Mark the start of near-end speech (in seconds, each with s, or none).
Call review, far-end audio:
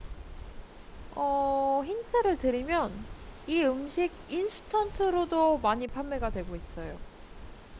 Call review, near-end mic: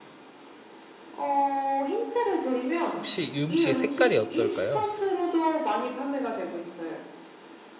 2.9 s